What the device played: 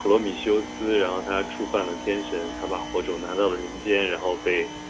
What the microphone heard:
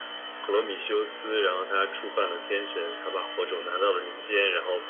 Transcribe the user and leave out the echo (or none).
none